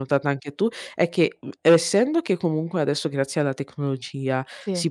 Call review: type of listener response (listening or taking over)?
listening